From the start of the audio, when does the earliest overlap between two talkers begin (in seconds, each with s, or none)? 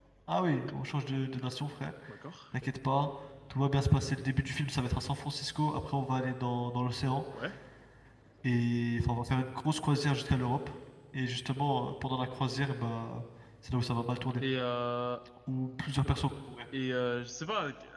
none